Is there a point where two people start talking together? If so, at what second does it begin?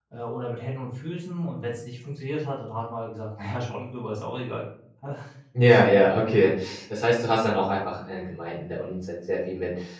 none

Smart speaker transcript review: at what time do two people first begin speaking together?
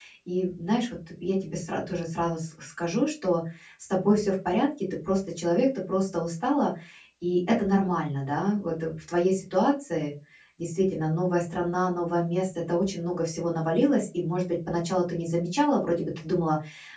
none

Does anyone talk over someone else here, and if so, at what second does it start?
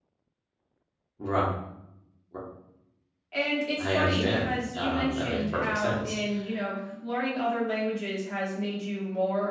4 s

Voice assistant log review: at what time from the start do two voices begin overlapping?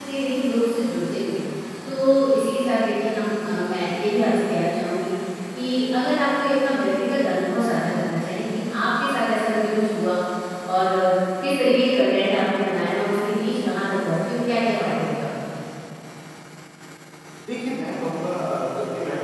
none

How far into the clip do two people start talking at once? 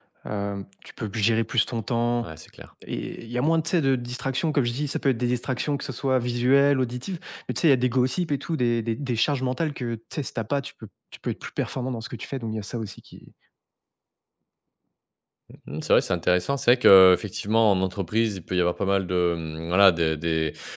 none

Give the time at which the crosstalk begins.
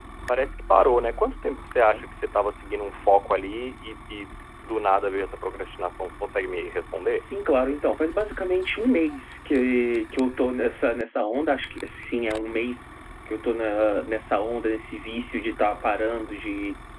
none

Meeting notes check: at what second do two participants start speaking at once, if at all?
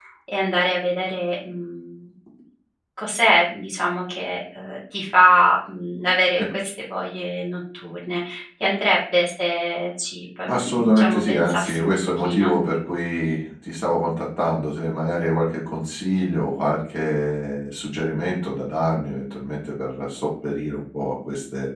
10 s

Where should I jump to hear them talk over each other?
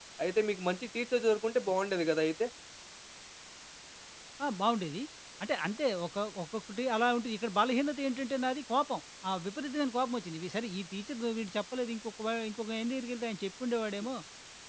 none

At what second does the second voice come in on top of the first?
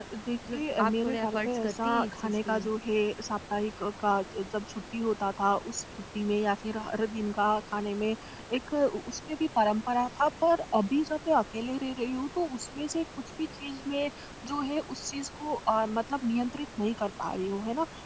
1 s

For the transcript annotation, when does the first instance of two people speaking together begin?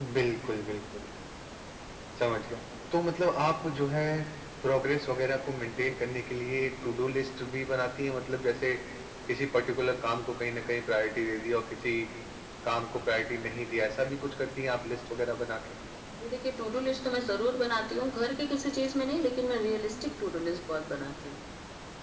none

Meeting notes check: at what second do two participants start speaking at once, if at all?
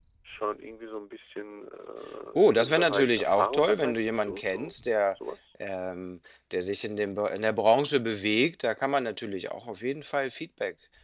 2 s

